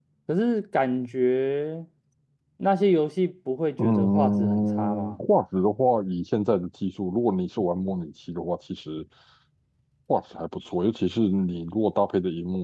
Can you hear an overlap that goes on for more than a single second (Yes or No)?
Yes